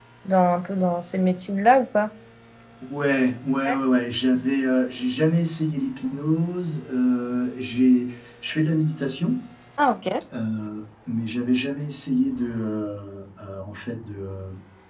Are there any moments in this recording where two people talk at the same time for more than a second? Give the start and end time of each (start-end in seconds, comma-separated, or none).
none